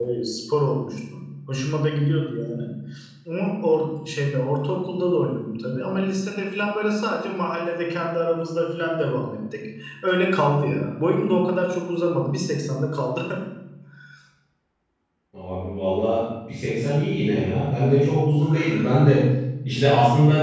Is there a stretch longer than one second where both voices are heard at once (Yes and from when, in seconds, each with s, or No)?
No